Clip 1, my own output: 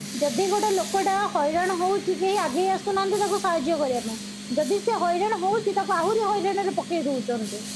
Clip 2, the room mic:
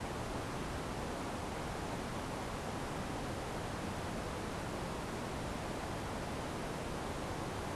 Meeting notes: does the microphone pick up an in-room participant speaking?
No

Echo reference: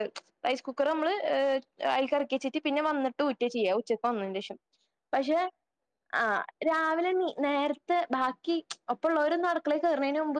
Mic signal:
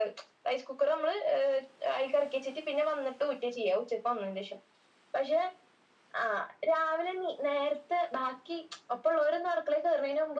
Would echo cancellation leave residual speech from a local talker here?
No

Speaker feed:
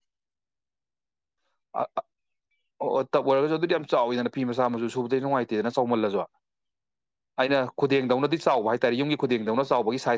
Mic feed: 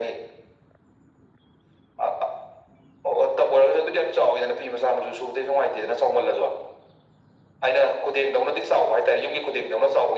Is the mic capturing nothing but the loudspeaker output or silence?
Yes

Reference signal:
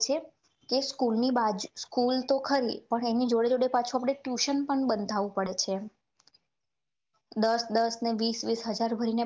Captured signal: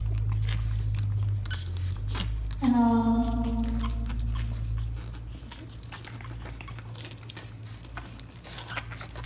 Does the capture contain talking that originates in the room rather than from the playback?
Yes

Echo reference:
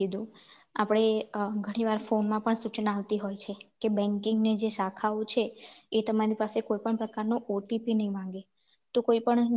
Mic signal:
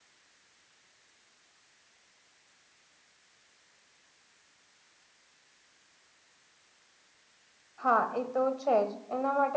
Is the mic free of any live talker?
No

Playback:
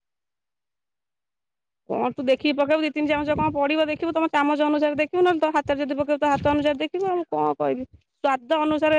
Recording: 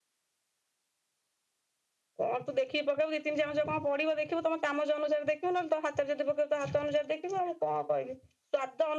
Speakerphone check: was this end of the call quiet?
Yes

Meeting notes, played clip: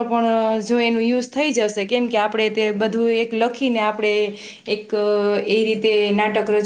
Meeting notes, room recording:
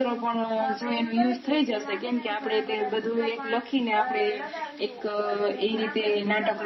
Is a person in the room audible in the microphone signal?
Yes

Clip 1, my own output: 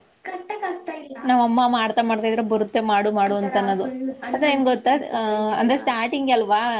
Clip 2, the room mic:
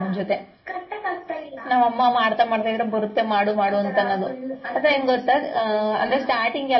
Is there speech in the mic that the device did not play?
No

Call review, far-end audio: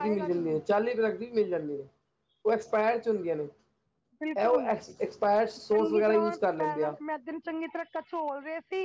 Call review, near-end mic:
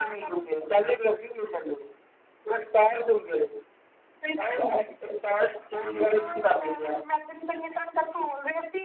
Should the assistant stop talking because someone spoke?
No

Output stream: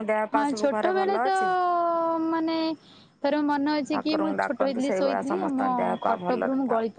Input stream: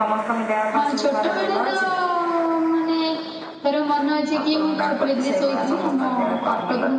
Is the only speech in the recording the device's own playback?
Yes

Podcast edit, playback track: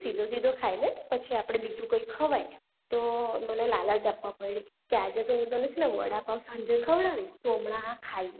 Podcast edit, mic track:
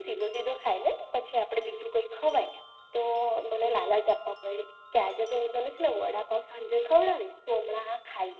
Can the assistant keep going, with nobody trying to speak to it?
Yes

